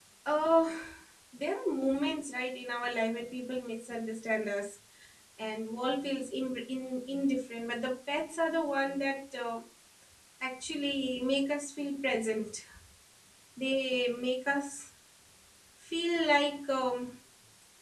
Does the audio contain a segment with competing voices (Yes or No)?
No